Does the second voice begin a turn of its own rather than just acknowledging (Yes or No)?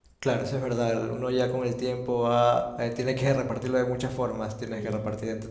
No